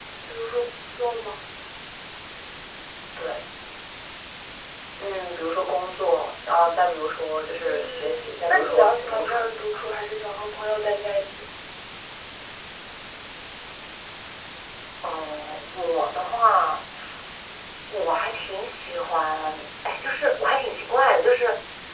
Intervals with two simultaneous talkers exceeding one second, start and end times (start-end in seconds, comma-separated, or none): 7.6-9.5